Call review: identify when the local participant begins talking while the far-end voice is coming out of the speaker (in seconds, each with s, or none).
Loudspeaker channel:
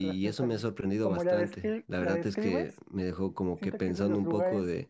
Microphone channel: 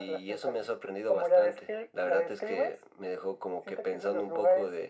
none